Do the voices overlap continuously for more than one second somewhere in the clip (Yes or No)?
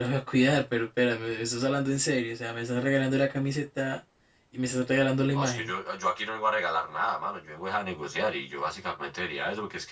No